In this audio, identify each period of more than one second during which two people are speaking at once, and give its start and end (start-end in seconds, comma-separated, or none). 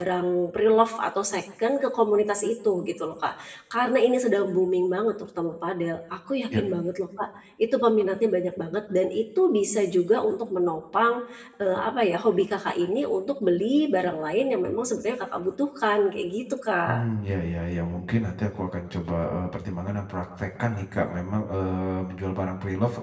none